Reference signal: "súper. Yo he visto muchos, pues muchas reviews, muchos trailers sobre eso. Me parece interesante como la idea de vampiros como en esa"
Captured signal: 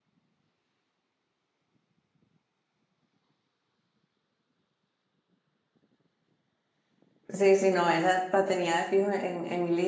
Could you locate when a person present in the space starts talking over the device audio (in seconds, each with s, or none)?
7.3 s